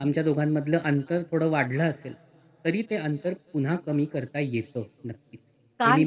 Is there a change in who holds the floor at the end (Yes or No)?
Yes